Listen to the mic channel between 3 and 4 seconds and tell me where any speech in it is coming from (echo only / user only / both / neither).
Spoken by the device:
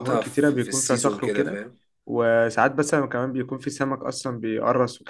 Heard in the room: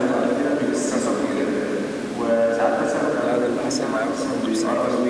both